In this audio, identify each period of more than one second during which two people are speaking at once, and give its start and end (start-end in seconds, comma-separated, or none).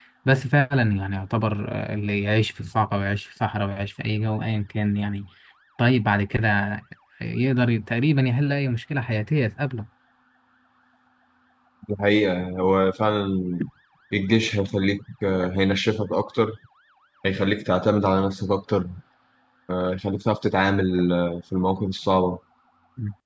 none